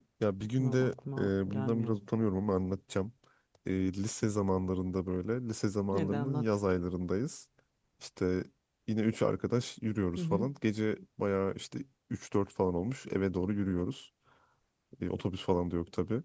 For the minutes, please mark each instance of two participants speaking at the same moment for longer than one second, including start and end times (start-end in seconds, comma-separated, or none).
0.6-1.9